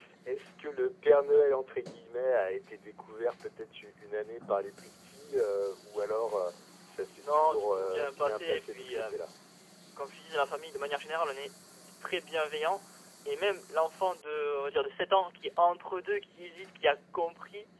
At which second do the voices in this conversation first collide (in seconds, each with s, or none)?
7.2 s